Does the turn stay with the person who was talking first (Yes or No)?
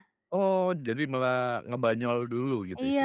No